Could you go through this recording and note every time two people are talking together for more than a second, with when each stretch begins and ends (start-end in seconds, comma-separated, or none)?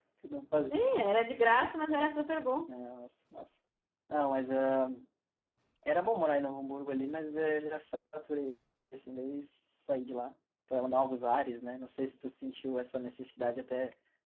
none